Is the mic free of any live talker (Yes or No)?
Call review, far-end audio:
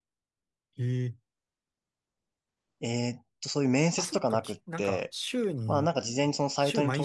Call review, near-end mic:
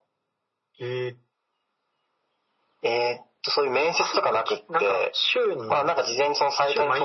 Yes